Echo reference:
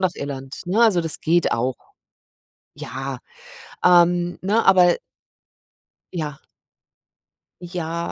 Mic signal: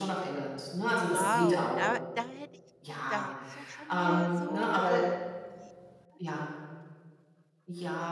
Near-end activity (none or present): present